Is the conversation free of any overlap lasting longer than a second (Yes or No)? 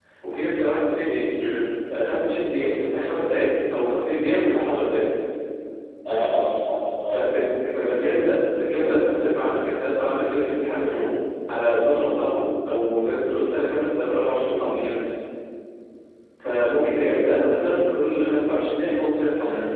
Yes